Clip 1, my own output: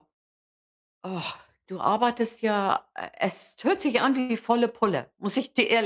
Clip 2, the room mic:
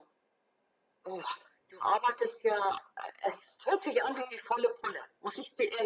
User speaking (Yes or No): No